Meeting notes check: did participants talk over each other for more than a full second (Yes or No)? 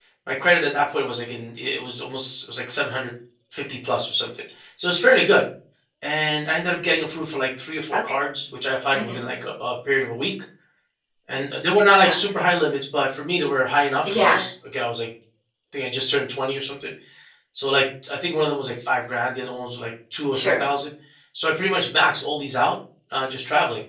No